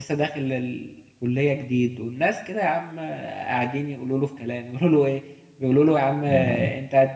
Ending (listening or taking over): listening